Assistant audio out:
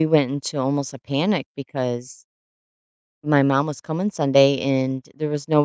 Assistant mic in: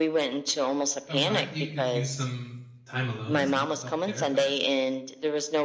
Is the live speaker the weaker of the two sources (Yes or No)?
Yes